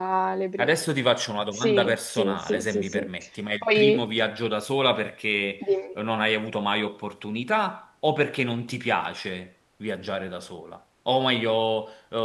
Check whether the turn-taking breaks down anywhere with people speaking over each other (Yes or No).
Yes